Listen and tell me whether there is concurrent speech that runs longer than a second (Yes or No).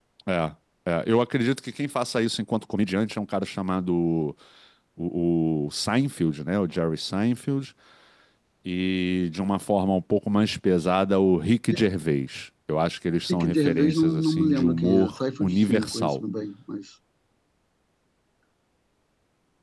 Yes